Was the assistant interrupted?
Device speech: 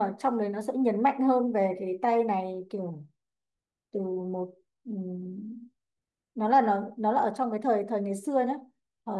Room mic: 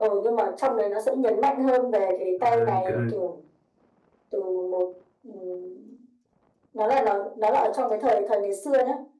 Yes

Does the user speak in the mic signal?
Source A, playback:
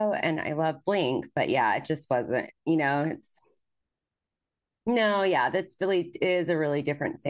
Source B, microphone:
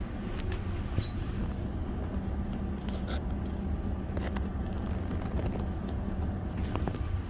No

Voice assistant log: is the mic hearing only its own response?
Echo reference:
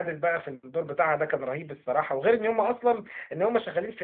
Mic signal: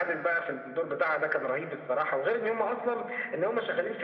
Yes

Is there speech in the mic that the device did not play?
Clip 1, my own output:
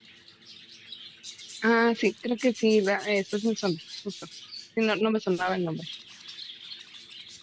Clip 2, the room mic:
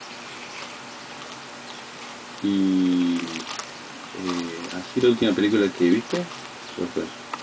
Yes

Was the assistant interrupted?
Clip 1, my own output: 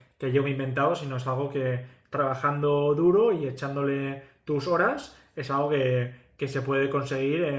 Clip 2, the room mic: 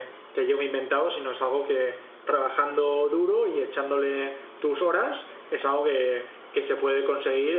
No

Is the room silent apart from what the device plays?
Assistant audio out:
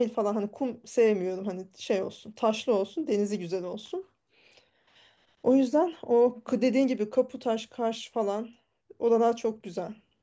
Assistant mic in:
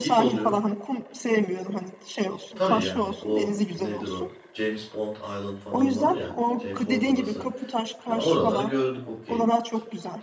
No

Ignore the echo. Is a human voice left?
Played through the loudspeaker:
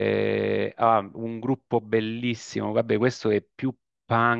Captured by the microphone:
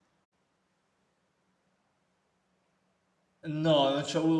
Yes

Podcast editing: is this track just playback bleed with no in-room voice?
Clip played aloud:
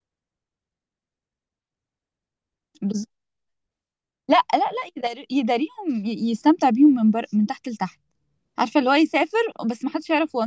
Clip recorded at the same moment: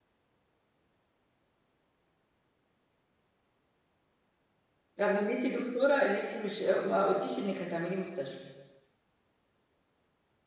No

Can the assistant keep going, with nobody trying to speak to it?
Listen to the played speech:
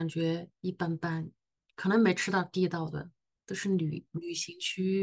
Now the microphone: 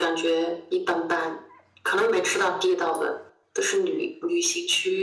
Yes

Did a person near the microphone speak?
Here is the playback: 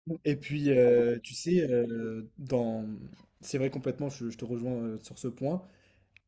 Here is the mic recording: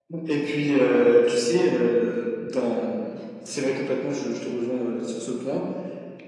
No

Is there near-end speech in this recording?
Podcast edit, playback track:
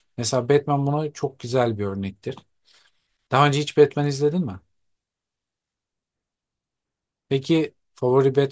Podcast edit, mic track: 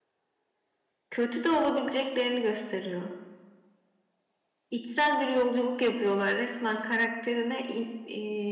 Yes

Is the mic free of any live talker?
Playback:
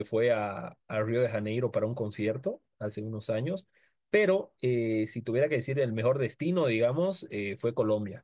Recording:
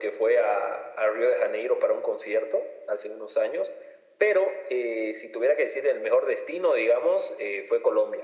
Yes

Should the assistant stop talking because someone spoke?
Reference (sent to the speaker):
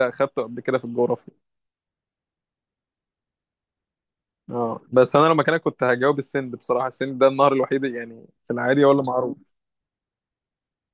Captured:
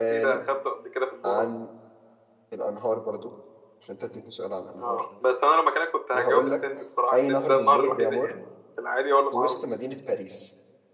Yes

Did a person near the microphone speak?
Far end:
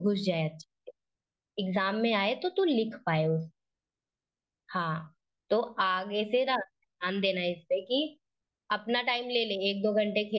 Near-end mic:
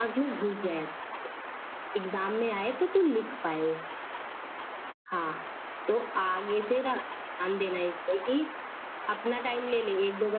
No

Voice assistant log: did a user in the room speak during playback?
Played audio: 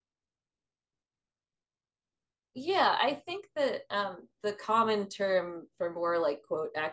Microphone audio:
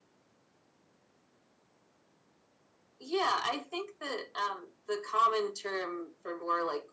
No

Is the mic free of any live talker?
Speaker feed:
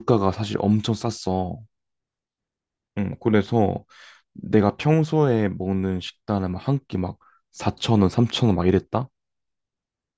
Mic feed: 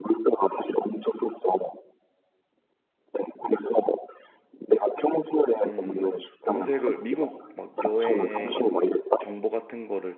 No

